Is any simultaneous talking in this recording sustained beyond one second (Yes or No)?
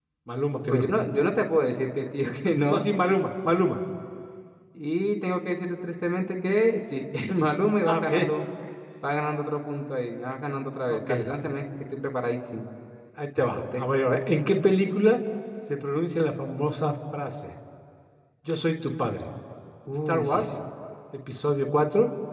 No